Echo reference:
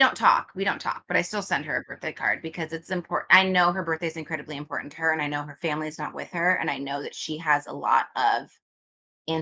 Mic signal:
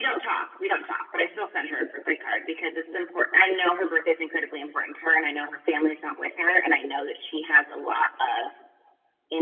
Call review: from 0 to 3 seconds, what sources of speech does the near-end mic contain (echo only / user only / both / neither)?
echo only